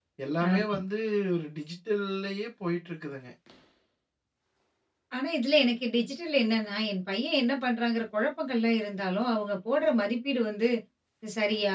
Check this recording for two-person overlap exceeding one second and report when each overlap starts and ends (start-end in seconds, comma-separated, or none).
none